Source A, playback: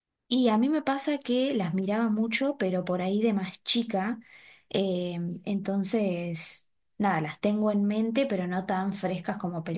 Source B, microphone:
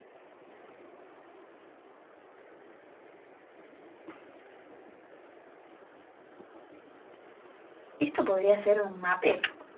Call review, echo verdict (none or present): none